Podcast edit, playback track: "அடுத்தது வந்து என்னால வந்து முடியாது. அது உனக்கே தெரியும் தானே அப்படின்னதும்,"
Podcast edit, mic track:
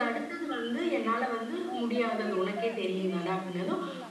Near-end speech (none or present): present